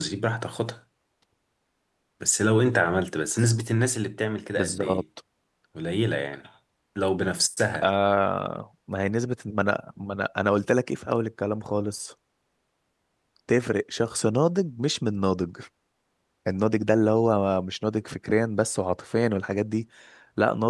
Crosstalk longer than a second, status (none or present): none